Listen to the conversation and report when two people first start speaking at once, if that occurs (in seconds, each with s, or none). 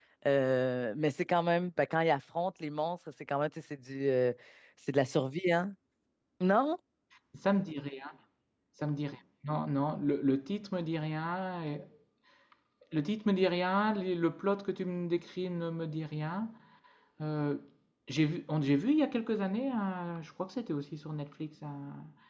none